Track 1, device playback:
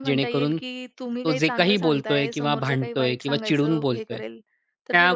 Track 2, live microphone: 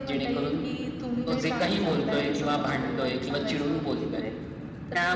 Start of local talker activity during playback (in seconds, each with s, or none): none